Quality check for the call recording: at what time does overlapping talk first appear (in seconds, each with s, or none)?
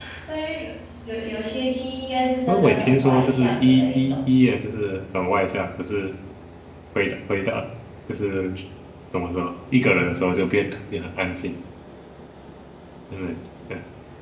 2.5 s